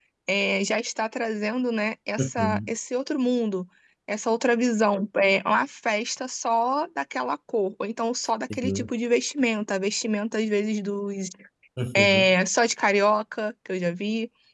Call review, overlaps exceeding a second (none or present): none